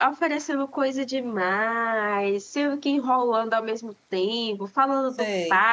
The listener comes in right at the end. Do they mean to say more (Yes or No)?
No